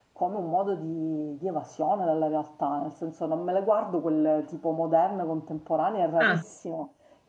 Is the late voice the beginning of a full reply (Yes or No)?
No